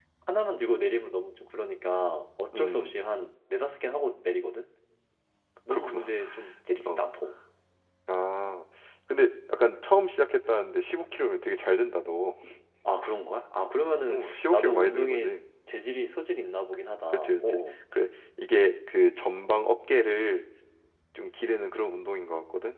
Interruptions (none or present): present